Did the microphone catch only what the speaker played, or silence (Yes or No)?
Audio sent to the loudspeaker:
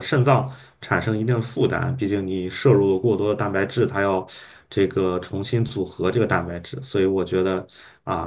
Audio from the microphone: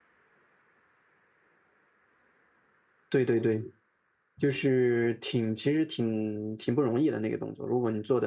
No